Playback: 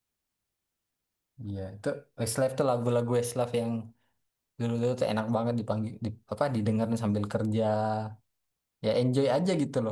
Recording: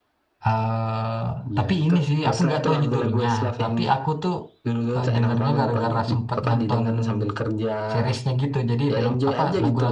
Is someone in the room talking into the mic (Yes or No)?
Yes